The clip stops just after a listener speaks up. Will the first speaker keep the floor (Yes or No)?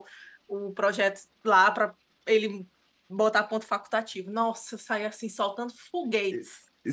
No